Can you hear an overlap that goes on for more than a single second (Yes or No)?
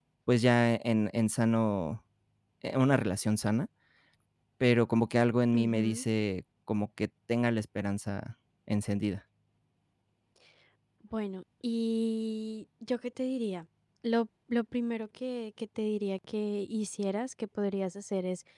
No